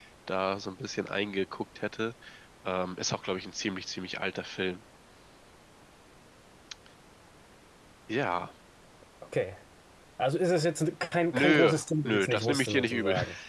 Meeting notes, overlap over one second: present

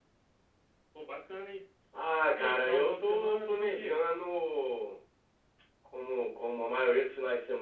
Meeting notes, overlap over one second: present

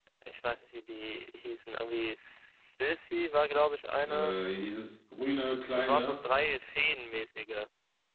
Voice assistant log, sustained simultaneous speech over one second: none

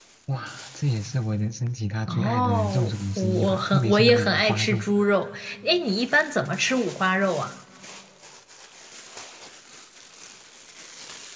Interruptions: present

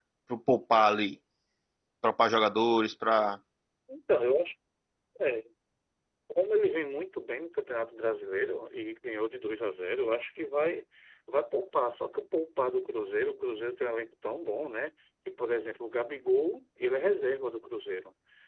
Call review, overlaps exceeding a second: none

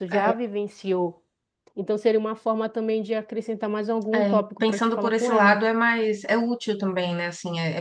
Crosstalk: present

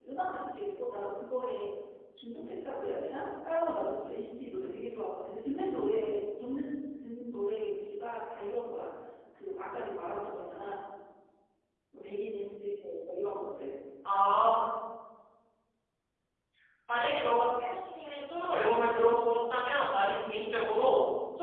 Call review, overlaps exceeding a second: none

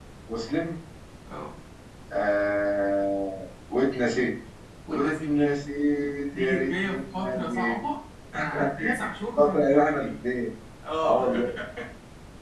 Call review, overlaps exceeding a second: present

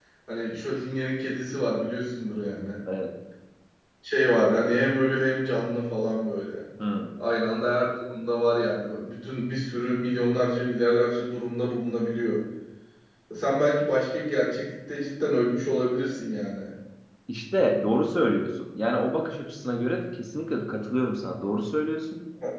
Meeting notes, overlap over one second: none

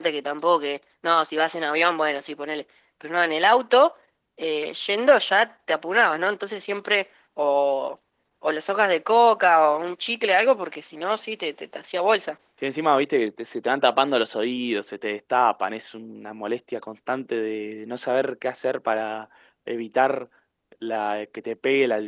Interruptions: none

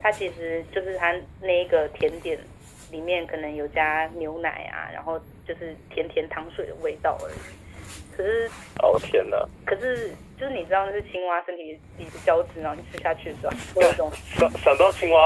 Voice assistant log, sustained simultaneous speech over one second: none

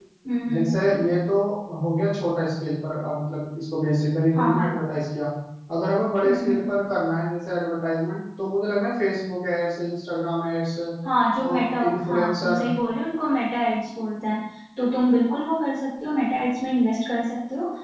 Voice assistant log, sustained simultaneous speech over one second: present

